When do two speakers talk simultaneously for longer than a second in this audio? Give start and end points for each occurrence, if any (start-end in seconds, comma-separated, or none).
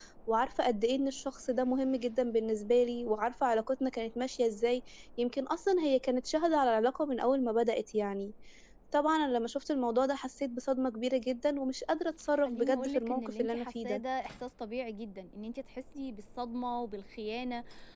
12.4-14.0